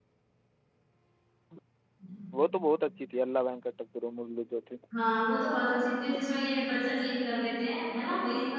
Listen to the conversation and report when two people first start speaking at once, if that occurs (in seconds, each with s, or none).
none